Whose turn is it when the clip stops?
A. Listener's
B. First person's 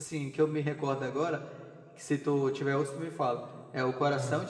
B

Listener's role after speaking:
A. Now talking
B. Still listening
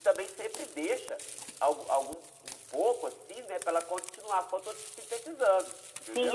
A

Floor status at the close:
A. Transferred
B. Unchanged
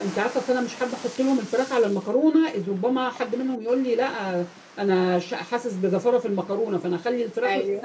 B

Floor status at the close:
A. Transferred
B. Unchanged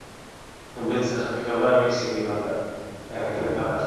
B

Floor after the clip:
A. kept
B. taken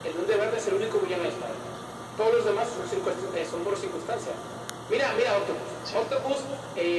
A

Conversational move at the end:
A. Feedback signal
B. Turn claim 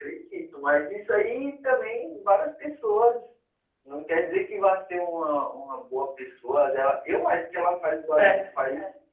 A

